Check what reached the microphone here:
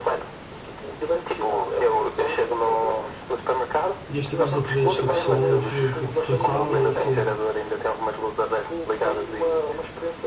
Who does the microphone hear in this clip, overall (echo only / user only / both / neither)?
both